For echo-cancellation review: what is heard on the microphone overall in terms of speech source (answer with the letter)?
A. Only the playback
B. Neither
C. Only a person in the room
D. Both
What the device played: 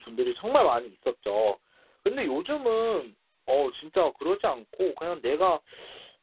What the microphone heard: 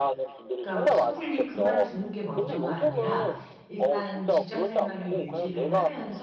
D